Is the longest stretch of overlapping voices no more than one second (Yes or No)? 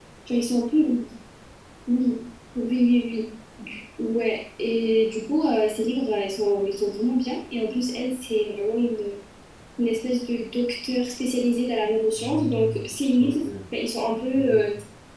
No